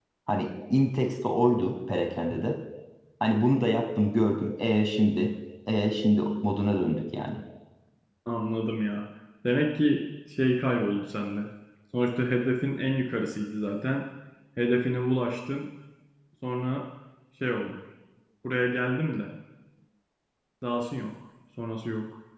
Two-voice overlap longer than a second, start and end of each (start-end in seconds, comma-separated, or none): none